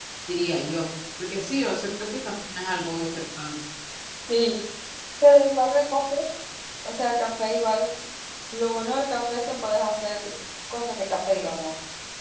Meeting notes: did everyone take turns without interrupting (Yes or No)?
Yes